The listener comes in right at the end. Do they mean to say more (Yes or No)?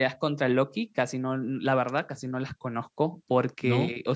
No